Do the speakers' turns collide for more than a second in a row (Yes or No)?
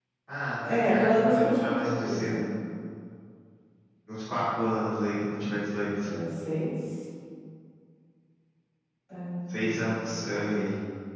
Yes